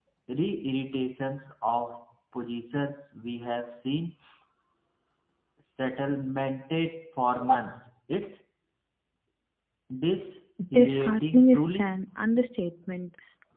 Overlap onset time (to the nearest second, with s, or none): 11 s